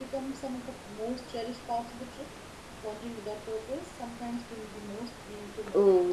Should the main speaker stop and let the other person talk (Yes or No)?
Yes